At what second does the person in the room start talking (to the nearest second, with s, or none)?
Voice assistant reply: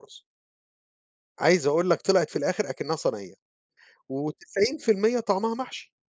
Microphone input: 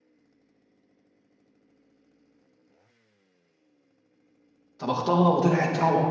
5 s